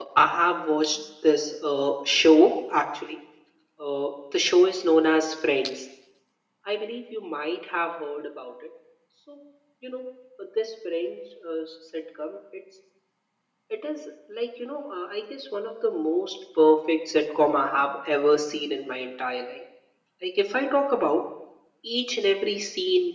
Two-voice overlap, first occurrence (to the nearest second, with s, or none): none